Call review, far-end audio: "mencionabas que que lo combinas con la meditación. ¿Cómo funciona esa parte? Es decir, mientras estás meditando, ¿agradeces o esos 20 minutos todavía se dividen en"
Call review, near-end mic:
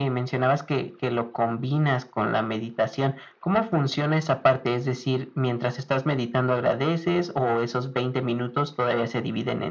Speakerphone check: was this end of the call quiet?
Yes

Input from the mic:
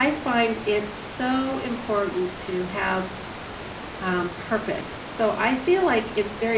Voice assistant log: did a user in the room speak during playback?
Yes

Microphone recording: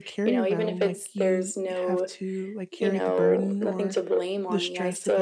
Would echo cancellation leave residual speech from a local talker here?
Yes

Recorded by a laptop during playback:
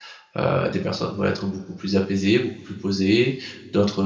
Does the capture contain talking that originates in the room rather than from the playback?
Yes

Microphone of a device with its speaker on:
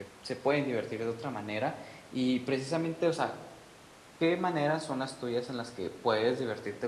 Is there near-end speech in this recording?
Yes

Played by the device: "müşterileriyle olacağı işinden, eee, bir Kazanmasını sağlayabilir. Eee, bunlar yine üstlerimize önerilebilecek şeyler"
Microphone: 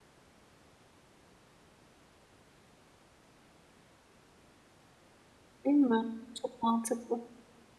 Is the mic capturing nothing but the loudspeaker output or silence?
No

